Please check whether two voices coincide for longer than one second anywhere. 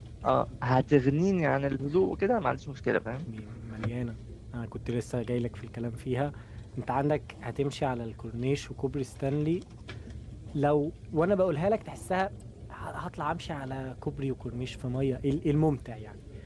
No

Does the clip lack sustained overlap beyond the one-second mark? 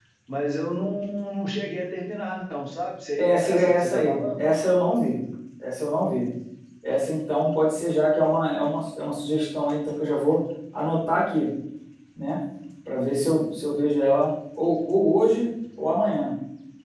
No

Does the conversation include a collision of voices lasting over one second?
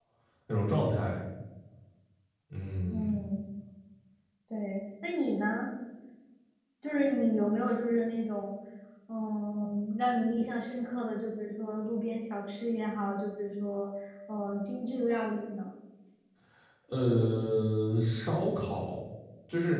No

